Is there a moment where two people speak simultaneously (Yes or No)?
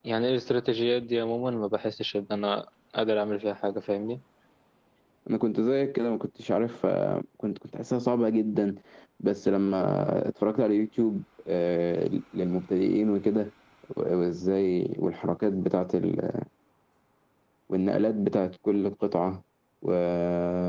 No